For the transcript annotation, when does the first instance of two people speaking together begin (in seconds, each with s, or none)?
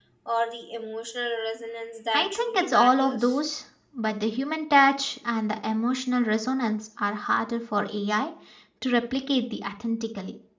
2.1 s